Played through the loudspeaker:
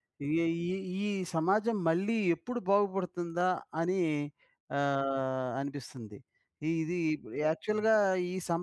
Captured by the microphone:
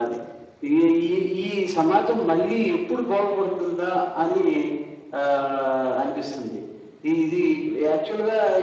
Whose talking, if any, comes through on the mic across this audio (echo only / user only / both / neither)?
echo only